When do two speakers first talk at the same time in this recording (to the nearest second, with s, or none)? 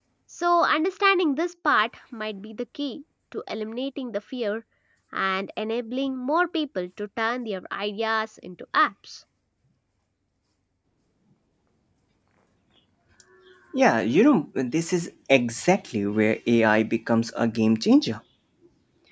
none